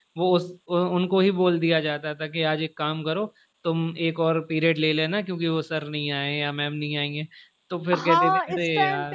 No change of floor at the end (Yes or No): No